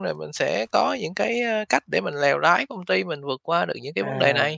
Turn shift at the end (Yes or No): Yes